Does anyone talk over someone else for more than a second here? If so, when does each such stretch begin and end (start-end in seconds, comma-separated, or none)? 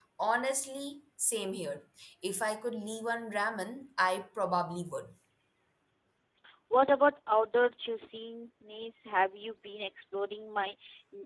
none